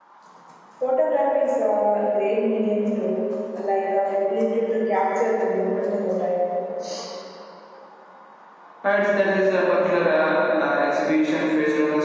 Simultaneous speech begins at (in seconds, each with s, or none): none